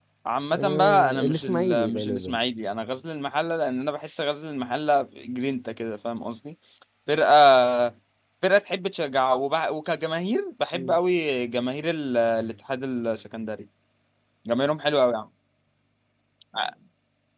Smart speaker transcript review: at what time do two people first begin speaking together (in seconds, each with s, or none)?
0.5 s